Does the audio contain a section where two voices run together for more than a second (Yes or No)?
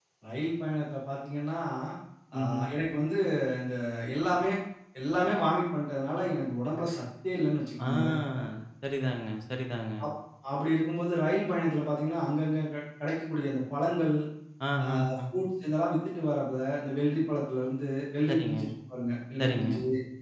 No